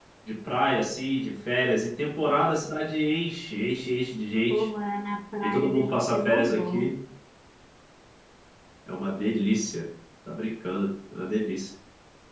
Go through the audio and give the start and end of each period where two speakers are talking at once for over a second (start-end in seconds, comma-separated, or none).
5.4-6.9